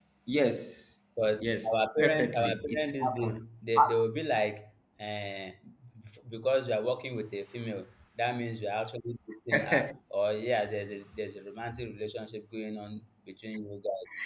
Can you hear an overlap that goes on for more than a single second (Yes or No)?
Yes